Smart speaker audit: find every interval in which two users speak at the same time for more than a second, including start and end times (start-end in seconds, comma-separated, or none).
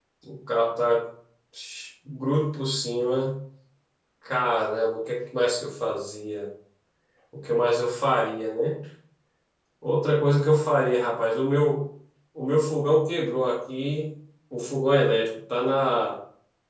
none